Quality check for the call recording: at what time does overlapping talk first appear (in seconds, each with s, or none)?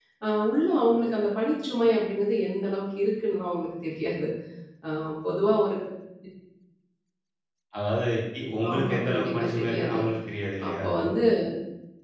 8.7 s